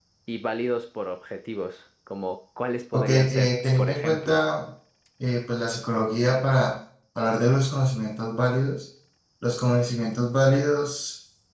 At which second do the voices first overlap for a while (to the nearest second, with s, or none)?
3 s